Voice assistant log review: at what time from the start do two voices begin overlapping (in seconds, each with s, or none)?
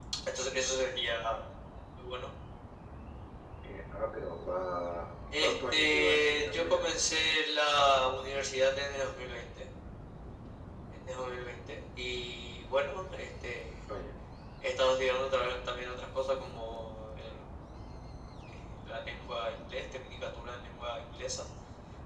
5.3 s